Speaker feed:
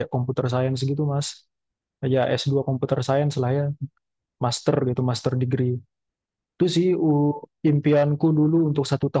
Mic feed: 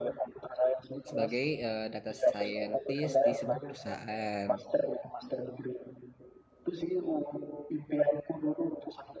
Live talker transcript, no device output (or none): sebagai eh, data scientist di sebuah perusahaan.